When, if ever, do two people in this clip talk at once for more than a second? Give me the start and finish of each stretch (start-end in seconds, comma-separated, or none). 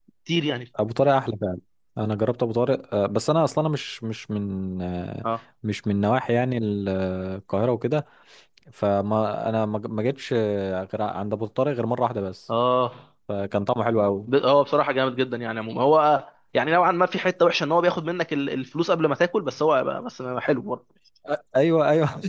none